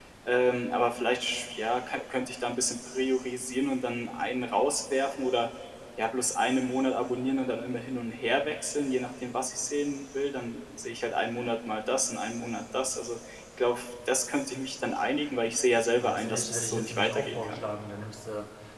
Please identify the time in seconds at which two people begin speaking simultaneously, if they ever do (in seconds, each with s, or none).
16.0 s